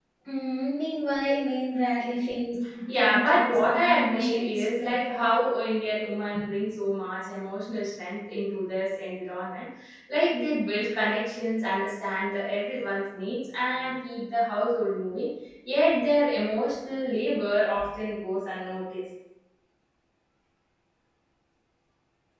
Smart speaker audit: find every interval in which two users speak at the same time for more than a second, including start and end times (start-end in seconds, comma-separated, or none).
3.0-5.2